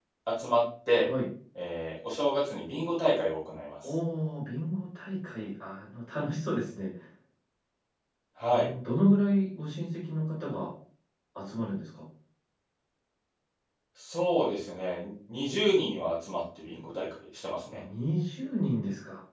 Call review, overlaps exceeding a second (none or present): none